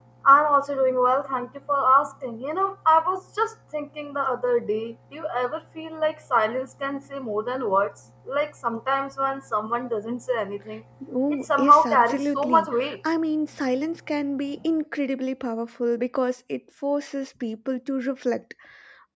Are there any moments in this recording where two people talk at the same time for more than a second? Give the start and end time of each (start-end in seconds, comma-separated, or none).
11.6-12.9